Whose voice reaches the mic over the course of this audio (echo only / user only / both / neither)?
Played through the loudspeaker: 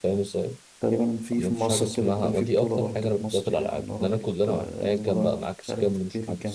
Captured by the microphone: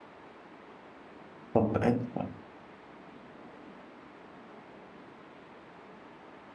user only